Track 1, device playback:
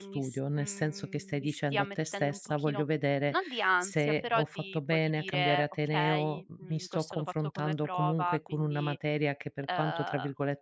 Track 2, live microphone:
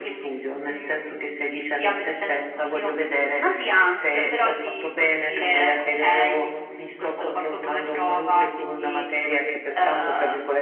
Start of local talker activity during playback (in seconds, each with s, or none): none